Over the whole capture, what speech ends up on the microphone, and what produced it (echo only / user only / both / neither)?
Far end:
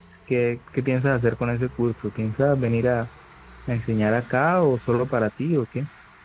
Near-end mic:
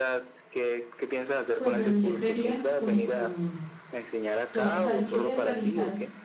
both